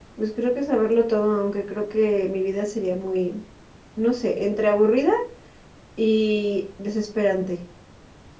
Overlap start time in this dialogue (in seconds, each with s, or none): none